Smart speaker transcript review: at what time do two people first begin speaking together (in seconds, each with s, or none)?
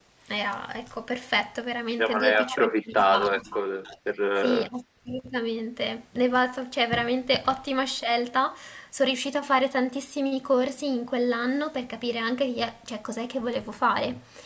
2.0 s